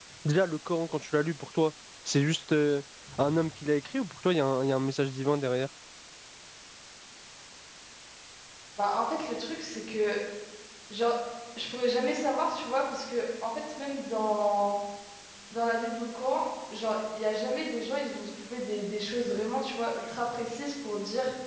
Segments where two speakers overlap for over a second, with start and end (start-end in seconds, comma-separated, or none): none